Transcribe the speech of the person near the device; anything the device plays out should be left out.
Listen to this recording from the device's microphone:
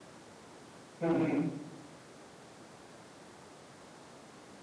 हं, हं.

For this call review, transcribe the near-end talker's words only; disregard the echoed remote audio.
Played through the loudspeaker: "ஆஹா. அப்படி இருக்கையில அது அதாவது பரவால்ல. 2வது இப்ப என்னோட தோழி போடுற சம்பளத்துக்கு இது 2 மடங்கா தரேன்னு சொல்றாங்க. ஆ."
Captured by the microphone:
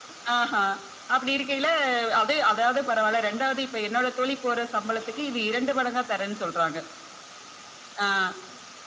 none

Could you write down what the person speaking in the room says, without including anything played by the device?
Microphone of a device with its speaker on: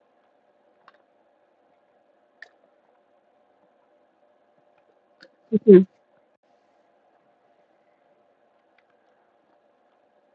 हुँ, हुँ।

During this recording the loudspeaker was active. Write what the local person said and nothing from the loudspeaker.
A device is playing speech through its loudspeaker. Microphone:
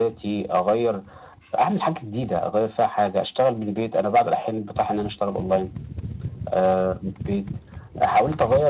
none

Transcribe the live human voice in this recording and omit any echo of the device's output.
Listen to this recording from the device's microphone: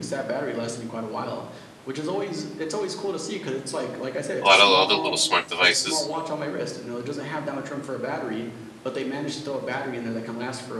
a lot of other little smart devices.

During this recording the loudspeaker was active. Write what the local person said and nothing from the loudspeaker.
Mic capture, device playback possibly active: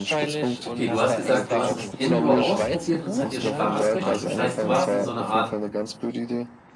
Okay, du hast gesagt, du hast es indoor ausprobiert und es hat dir Spaß gemacht. Das heißt, du warst in so einer Art

